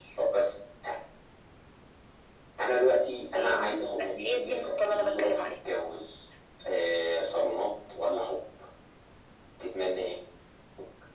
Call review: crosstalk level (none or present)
present